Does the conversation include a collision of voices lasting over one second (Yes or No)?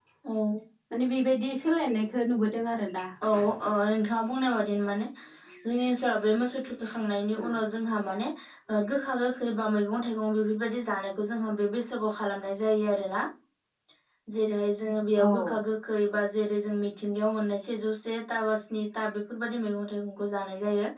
No